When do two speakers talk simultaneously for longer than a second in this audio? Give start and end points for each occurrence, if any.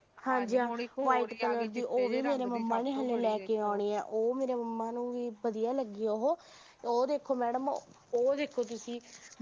1.0-3.8

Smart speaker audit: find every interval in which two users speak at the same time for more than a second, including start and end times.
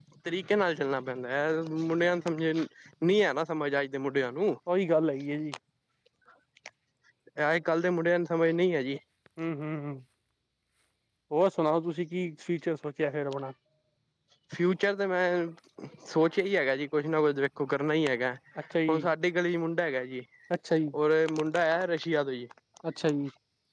none

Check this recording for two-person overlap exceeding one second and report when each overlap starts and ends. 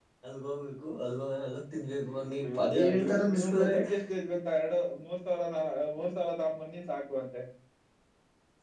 2.1-3.8

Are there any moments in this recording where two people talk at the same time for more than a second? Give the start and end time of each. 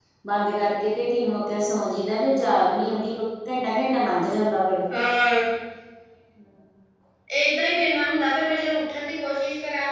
none

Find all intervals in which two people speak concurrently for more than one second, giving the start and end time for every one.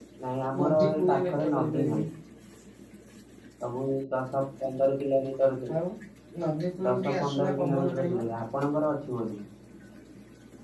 0.6-2.0, 6.8-8.2

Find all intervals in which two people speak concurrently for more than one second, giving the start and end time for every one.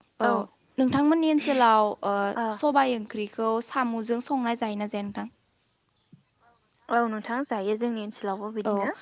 none

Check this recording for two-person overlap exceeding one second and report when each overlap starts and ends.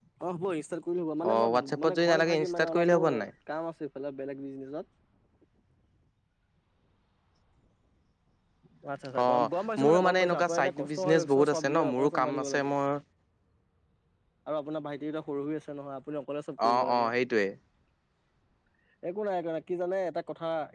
1.3-3.3, 9.8-12.7

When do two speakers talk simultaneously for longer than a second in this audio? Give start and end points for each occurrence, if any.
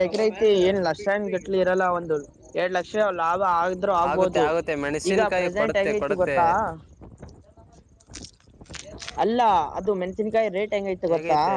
5.1-6.4

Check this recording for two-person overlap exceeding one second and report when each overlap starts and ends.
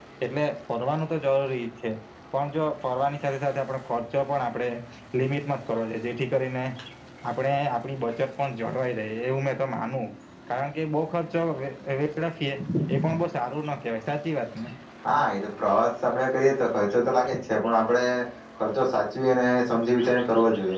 none

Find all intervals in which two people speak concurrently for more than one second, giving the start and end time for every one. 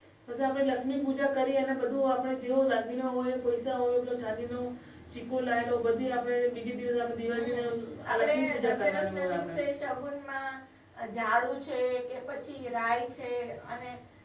8.1-9.5

